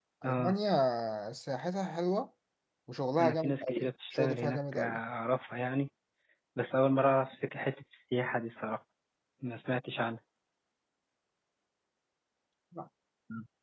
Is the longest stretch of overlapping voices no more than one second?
No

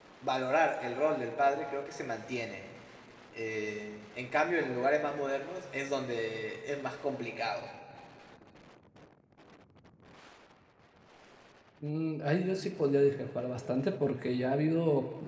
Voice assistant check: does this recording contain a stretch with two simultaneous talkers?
No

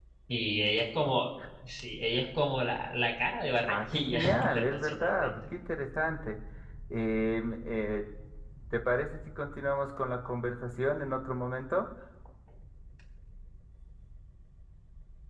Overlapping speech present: Yes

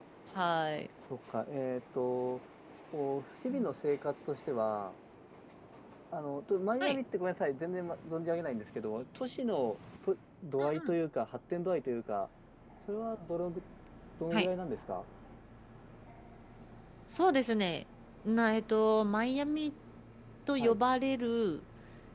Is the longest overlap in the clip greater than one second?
No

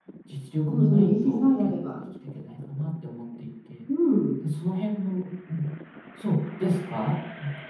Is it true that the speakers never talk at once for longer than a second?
No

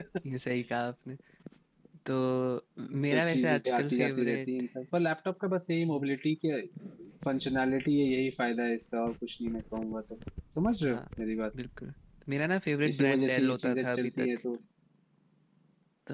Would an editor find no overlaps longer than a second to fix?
No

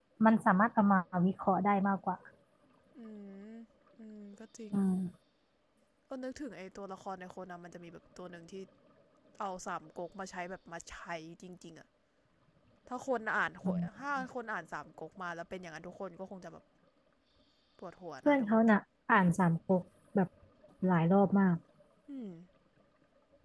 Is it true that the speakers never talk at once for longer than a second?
Yes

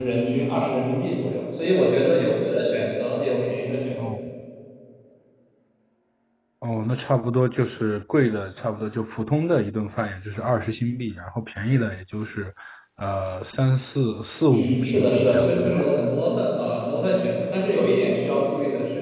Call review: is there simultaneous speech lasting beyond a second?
Yes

